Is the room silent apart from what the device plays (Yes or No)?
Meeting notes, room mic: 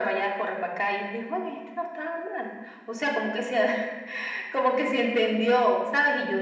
Yes